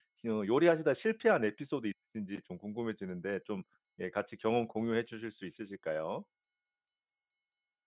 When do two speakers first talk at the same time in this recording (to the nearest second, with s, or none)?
none